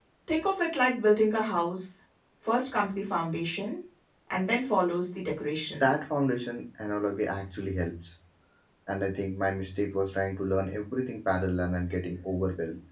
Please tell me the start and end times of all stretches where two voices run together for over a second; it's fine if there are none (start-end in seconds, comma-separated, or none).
none